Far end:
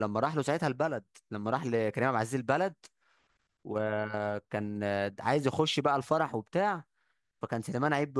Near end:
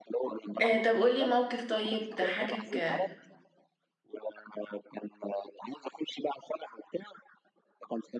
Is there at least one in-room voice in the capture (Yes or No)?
Yes